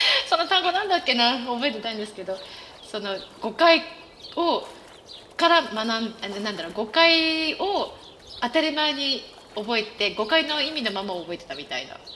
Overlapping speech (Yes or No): No